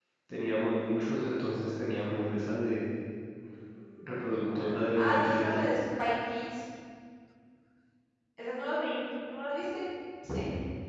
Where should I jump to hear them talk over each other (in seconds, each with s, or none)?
4.0 s